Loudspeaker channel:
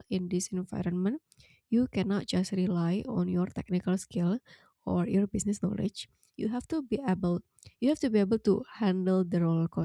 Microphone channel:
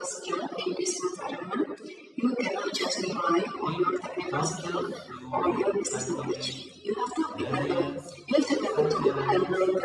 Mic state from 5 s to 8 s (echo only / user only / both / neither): both